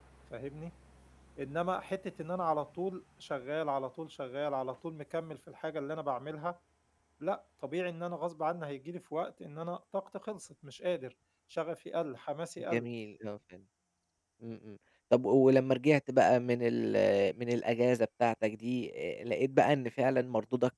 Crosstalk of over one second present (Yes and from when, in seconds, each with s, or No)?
No